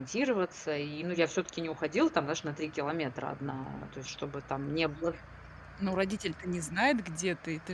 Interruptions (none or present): none